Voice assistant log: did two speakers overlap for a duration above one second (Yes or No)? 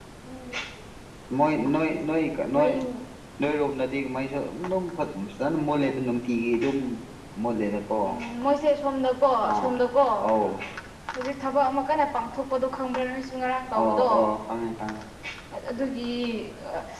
No